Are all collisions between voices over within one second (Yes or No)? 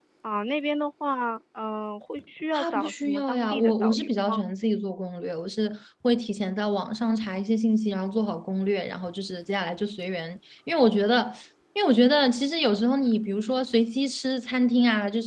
No